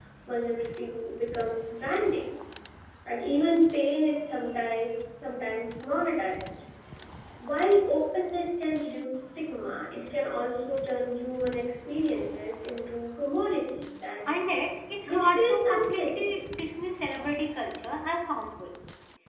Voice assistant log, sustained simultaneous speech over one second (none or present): present